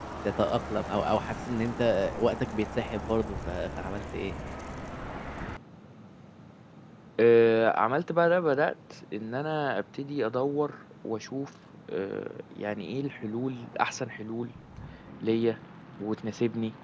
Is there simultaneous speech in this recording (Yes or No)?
No